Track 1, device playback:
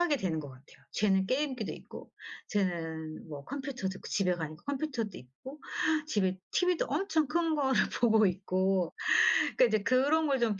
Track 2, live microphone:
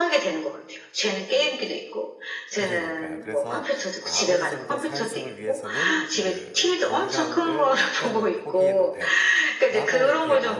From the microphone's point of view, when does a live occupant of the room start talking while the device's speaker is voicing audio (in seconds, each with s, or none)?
2.5 s